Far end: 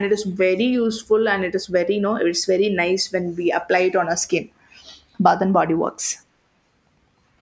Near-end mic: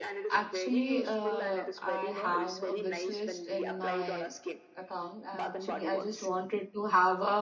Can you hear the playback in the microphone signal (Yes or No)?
Yes